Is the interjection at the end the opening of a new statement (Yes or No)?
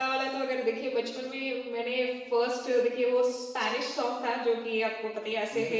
No